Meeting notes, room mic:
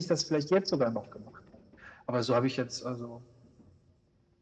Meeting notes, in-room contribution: none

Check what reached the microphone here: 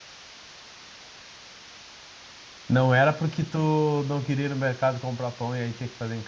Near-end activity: present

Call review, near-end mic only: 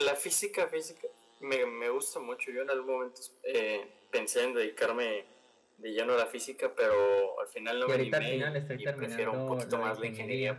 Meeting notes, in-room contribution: present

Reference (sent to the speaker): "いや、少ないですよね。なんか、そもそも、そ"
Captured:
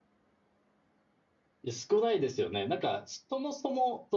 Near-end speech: none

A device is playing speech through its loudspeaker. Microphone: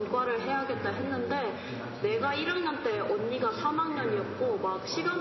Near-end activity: present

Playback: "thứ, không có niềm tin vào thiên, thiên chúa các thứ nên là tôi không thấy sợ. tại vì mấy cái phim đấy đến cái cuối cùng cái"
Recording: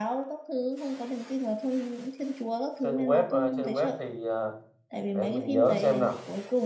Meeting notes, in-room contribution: present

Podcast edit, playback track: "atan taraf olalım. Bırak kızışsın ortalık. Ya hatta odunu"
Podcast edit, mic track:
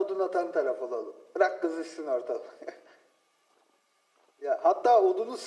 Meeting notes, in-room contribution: none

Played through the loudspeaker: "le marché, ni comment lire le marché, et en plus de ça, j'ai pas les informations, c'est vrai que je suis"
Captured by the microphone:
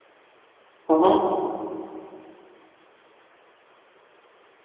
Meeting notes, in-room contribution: present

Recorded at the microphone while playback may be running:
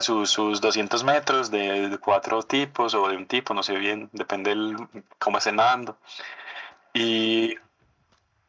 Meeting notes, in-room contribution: none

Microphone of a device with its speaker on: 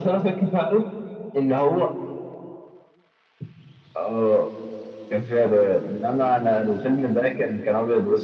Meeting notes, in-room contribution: none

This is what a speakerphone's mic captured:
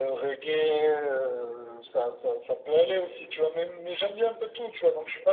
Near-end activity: none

